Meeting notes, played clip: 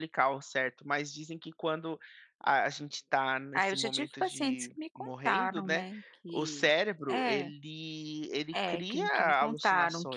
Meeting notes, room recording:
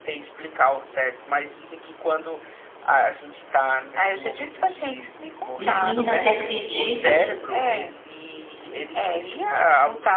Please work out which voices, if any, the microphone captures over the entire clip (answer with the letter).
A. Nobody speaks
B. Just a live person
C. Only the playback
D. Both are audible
D